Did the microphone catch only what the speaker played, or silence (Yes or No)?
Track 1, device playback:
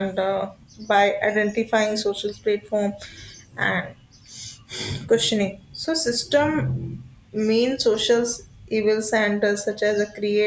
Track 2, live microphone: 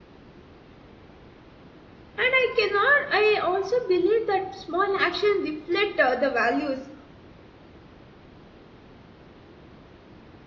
No